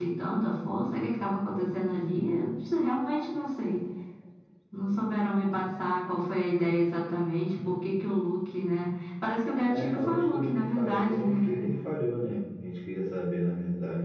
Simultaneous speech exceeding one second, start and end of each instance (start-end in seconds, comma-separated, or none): 9.6-11.4